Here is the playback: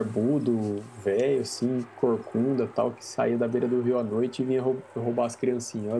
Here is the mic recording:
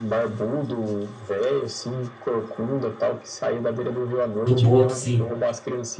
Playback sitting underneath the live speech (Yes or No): Yes